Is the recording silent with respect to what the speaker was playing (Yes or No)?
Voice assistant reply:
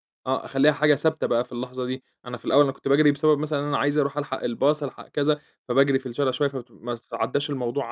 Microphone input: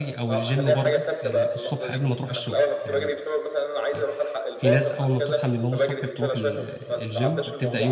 No